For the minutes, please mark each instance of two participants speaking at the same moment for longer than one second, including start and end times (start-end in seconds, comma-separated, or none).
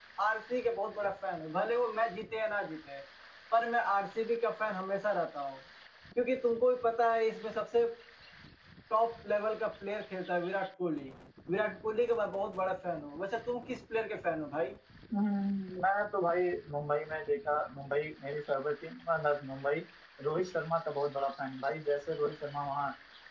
none